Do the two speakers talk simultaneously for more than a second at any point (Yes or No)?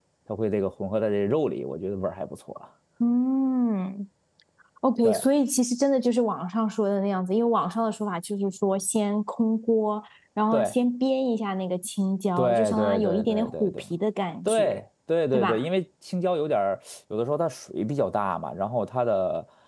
Yes